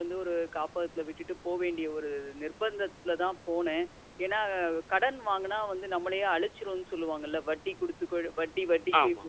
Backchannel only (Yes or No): No